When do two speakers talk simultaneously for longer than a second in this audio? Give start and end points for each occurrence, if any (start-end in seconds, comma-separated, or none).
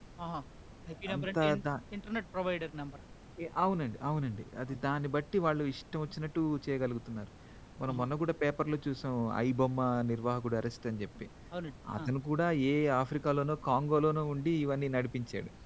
none